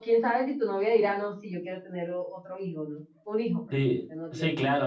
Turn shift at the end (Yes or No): Yes